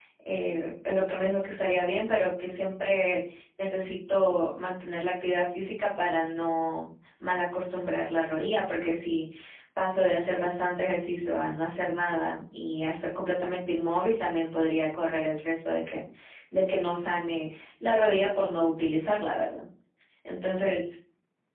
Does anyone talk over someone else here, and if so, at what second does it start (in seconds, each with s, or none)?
none